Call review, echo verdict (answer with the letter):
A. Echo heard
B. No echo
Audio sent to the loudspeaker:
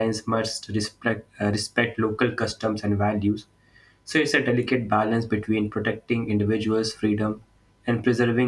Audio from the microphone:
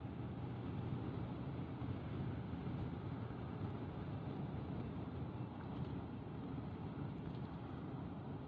B